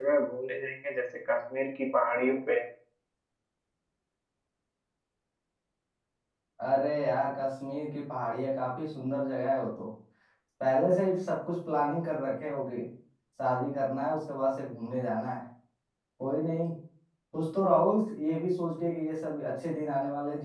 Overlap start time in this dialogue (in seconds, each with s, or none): none